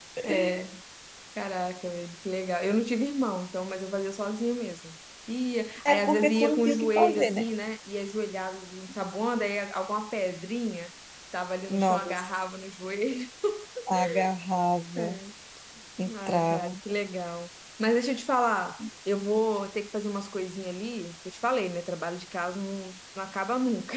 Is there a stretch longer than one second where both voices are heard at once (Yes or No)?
Yes